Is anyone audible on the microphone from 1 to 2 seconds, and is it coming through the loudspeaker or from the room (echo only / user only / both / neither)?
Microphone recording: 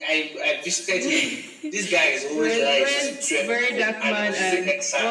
echo only